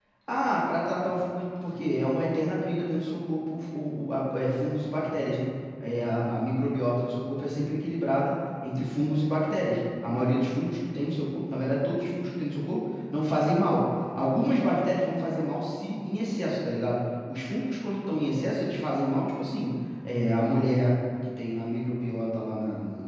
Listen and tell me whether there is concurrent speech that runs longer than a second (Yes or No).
No